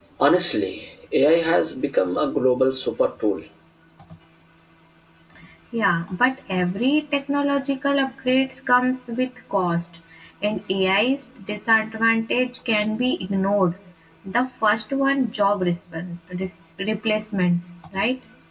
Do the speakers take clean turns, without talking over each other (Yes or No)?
Yes